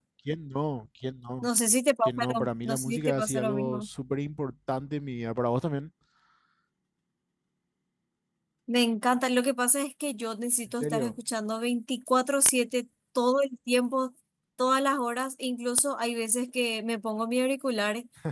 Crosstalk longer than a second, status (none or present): present